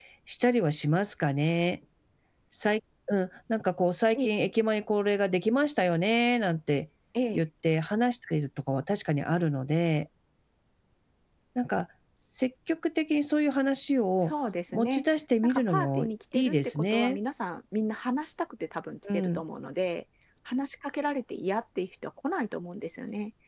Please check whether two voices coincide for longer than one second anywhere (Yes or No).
Yes